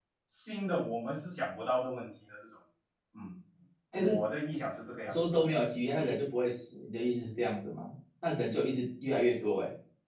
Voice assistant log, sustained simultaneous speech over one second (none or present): none